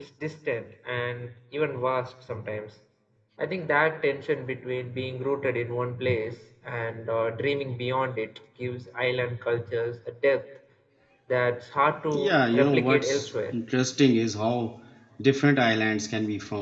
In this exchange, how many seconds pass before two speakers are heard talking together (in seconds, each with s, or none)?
12.1 s